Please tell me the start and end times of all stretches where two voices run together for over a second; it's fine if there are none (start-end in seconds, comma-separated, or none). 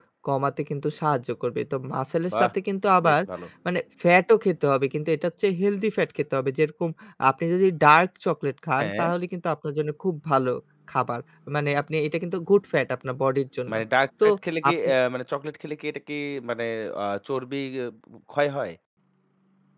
none